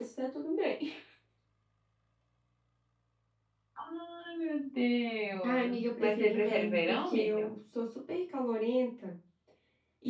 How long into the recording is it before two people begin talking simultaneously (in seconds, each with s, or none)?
5.4 s